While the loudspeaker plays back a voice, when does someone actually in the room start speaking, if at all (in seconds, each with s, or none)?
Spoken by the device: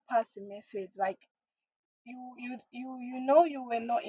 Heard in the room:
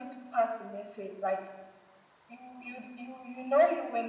none